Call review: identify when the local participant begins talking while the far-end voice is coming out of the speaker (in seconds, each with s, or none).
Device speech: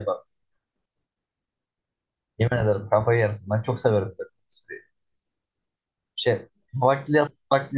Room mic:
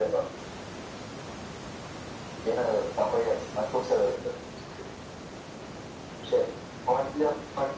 none